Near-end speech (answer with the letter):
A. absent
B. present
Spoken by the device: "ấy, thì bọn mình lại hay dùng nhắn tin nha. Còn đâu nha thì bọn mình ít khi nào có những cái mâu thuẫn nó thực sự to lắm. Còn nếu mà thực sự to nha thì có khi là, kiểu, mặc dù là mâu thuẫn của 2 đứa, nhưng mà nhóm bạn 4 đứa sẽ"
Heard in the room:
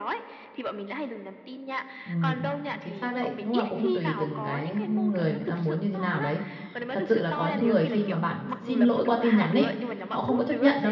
B